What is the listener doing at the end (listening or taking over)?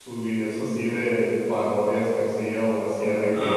listening